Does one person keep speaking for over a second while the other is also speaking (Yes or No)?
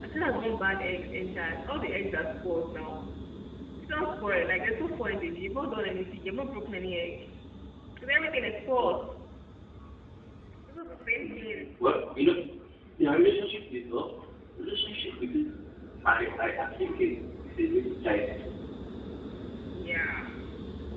No